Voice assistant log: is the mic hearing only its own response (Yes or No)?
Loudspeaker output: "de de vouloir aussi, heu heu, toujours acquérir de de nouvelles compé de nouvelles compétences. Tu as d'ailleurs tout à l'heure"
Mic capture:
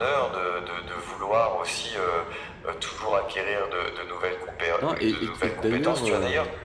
No